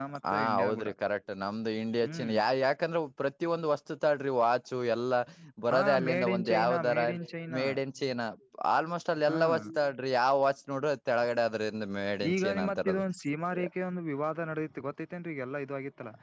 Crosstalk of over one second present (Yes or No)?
Yes